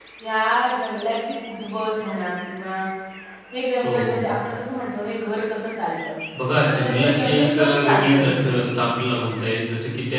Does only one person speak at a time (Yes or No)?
No